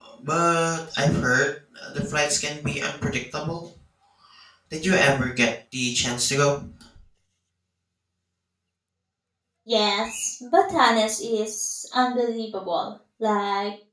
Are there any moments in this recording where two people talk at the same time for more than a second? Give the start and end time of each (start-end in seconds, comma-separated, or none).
none